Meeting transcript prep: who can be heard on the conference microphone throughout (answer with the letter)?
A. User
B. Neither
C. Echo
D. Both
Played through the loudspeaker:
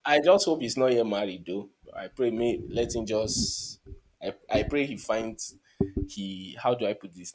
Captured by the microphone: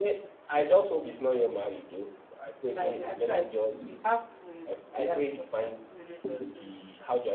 D